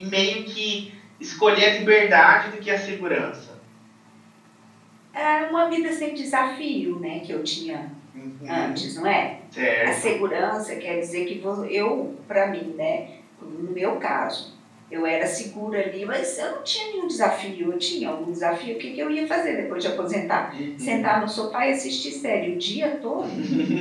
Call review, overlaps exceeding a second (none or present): none